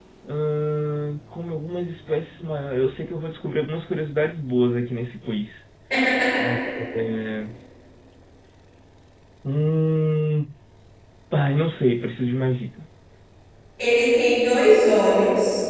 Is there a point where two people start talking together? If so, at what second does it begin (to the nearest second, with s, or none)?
none